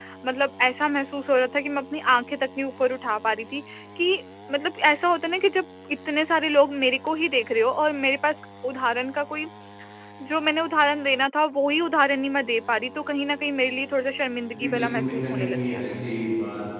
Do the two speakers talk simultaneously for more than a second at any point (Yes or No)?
Yes